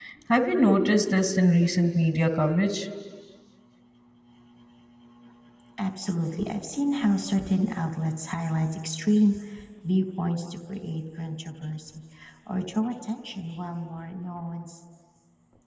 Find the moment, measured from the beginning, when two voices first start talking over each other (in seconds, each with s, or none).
none